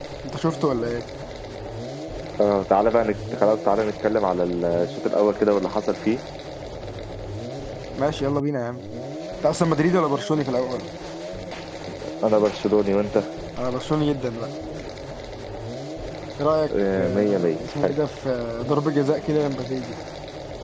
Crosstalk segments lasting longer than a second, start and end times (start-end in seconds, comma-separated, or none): 16.7-17.9